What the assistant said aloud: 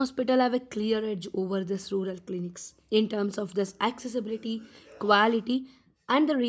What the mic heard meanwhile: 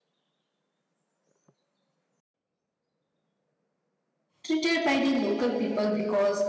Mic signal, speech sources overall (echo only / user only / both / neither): user only